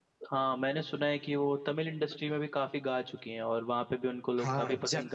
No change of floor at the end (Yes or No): No